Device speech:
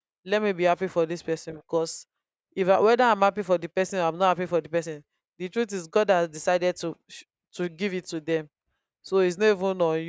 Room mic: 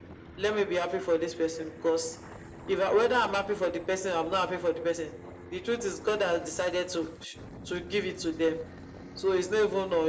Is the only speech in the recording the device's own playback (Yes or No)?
Yes